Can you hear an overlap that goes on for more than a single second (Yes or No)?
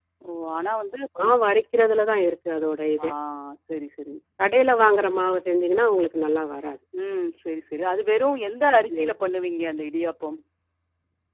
No